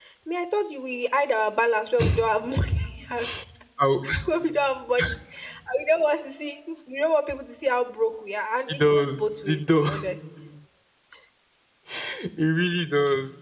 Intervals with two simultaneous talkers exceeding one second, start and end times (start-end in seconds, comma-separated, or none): 8.7-9.9